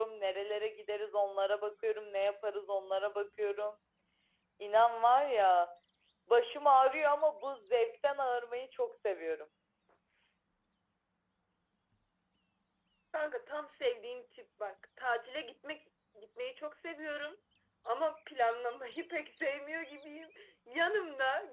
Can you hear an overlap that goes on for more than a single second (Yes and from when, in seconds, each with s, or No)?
No